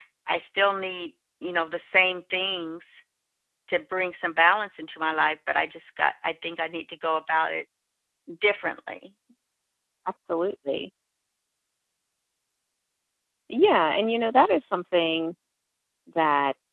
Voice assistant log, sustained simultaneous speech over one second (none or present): none